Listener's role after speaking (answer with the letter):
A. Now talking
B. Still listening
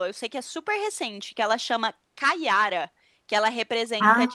B